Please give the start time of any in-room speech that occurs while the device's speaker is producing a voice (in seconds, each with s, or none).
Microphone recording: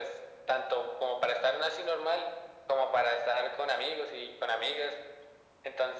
none